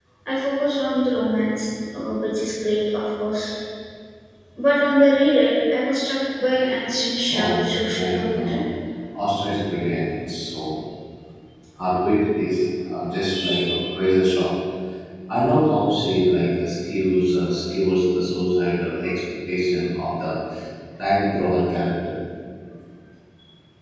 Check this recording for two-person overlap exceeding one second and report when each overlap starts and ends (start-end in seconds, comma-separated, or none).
7.3-8.6